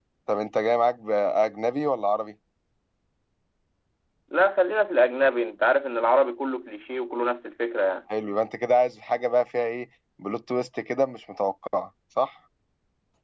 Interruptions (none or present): none